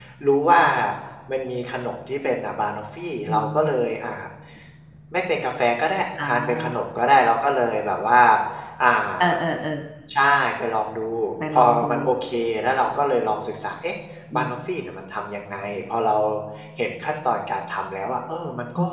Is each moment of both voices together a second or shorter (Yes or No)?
Yes